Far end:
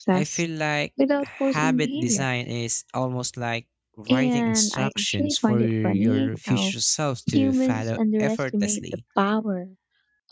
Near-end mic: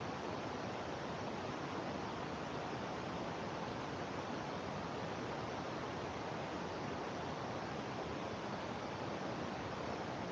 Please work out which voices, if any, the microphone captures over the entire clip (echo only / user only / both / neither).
neither